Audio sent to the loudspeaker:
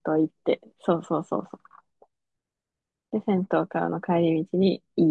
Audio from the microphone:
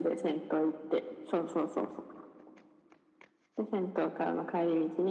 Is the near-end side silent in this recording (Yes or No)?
Yes